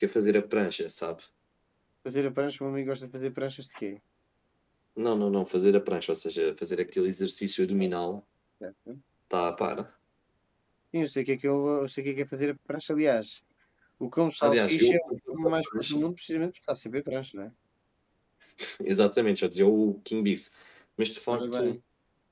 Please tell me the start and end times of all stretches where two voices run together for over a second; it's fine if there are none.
14.4-16.0

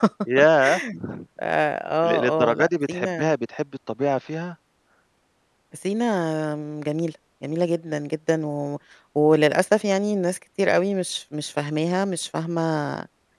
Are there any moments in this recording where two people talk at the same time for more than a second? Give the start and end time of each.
2.0-3.3

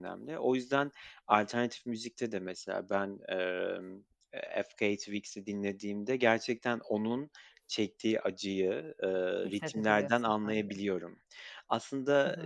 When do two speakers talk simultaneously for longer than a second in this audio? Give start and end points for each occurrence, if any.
9.5-10.7

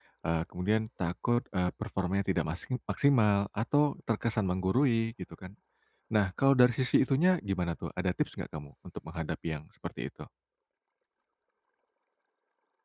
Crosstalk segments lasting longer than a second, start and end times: none

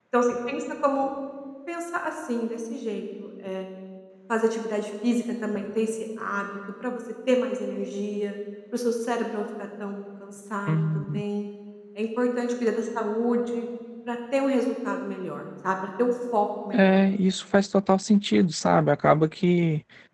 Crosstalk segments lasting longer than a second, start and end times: none

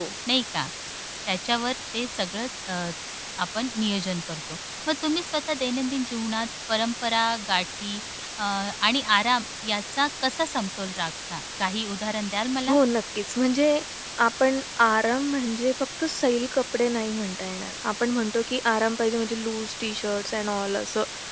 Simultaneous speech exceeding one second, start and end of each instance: none

